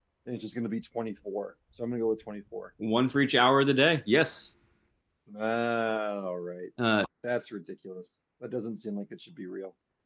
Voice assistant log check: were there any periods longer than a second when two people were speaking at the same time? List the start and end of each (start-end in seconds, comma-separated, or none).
none